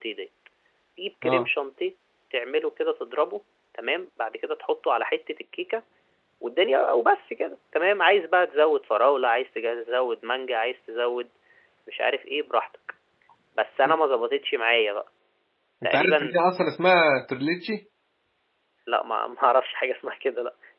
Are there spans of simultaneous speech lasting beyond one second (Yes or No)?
No